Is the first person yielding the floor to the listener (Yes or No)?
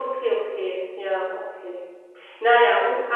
No